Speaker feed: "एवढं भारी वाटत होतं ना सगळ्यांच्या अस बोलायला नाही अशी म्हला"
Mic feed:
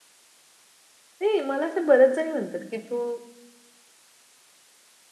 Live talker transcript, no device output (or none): नाही मला असे बरेच जणी म्हणतात की तू